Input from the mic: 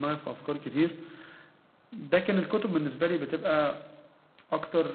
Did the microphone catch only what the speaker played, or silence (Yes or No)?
No